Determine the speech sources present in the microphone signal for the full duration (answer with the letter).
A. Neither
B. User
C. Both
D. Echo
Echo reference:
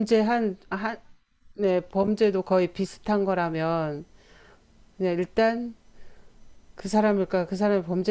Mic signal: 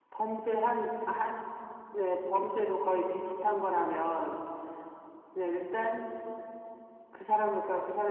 D